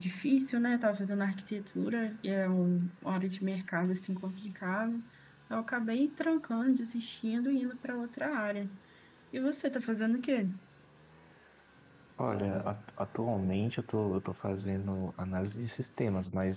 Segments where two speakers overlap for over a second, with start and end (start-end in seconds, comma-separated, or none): none